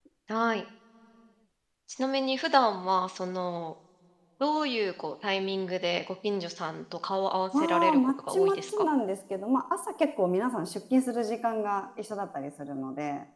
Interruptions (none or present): present